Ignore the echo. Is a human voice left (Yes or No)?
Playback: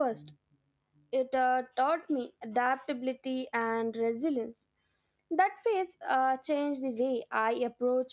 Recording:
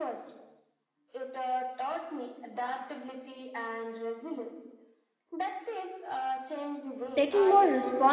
Yes